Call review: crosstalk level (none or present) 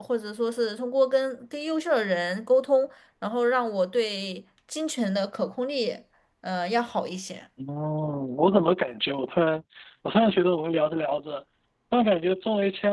none